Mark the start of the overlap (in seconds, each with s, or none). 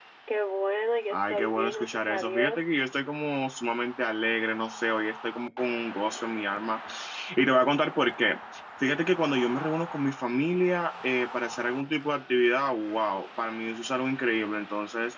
1.1 s